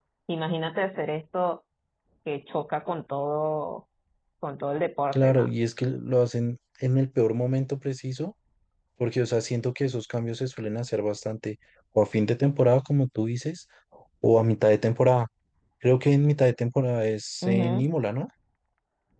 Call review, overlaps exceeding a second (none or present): none